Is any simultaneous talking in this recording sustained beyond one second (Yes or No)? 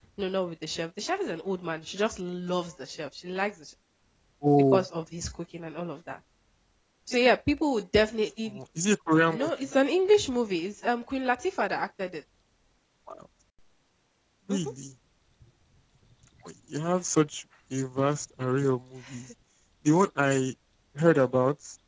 No